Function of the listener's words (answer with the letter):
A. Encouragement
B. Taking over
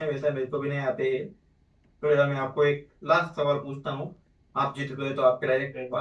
A